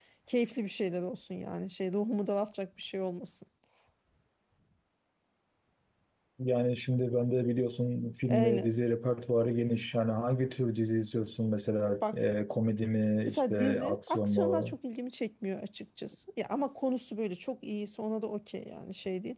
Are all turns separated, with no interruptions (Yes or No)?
No